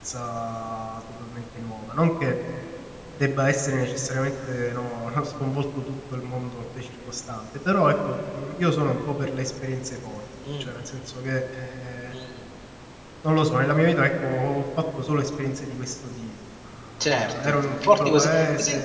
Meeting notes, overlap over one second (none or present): present